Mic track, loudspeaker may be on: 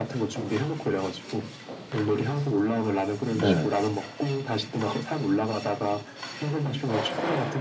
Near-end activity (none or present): present